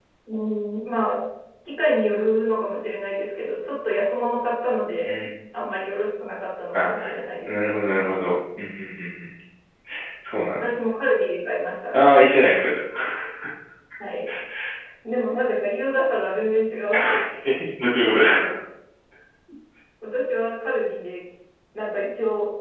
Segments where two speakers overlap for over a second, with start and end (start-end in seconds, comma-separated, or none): none